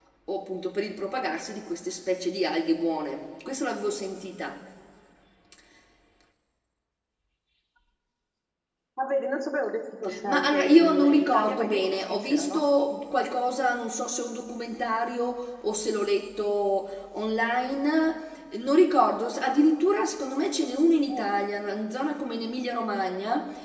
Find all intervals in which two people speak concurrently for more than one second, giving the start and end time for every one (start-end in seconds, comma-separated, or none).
10.2-12.7